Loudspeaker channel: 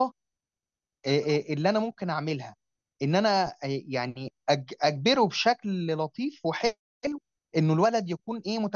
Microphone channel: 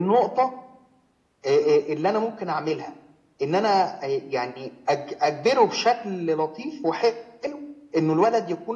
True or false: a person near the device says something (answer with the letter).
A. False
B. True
A